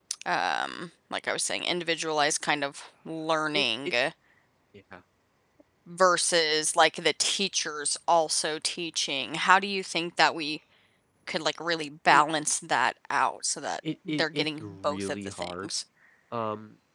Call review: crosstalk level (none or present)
present